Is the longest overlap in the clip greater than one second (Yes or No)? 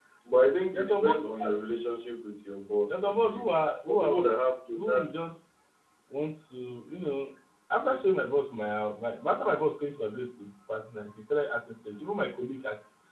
Yes